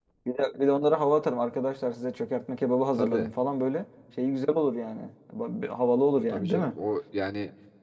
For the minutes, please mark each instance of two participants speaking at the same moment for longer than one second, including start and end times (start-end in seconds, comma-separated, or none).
none